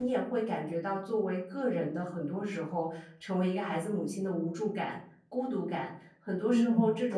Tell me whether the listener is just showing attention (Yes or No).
Yes